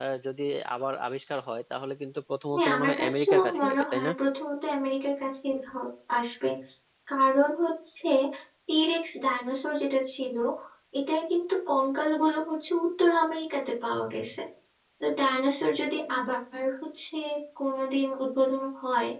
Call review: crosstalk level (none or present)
present